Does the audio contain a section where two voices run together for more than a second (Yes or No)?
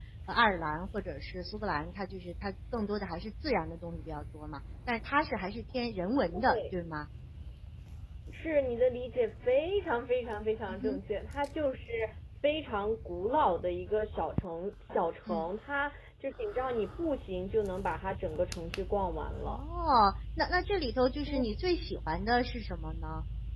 No